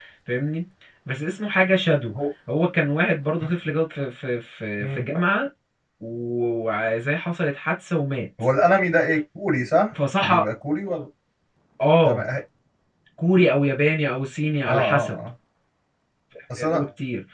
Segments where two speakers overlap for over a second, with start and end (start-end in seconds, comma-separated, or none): none